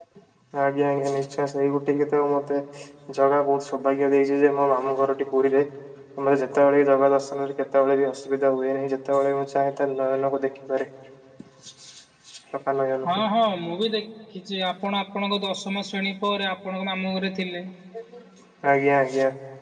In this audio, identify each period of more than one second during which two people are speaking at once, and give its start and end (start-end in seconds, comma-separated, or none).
none